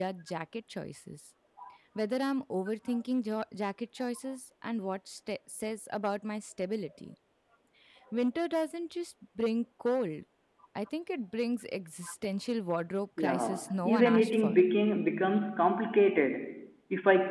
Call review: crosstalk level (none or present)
present